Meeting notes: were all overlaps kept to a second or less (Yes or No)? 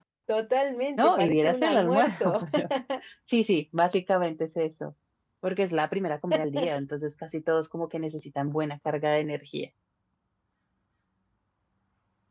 No